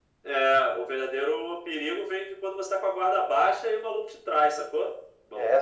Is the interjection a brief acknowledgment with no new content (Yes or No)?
No